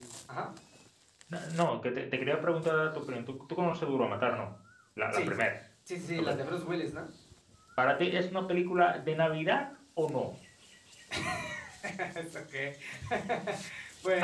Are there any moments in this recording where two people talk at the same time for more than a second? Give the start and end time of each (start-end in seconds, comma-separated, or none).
none